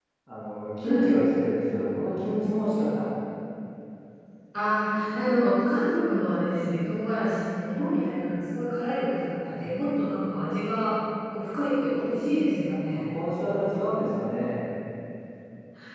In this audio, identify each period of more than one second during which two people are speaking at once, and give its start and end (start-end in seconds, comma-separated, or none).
none